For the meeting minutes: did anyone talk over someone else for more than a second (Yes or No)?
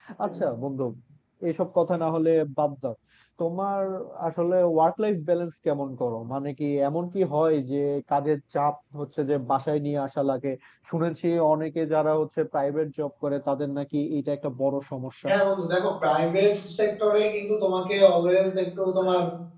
No